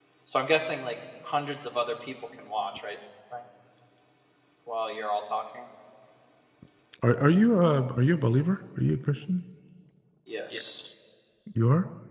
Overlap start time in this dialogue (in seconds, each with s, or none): none